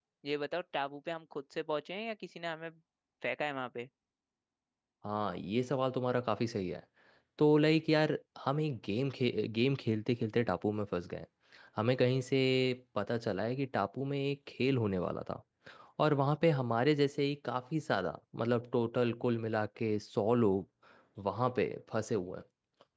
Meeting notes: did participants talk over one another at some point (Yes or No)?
No